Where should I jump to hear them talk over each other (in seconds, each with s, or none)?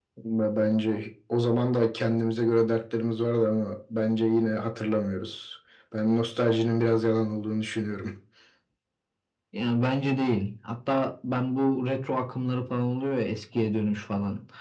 none